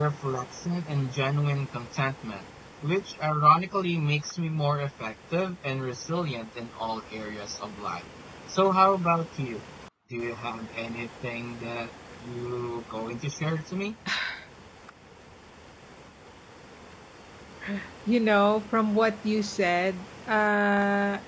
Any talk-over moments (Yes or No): No